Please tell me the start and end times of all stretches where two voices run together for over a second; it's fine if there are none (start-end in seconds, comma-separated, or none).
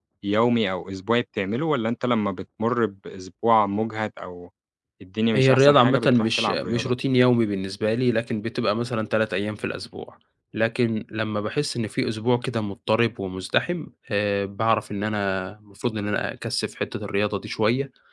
5.4-6.9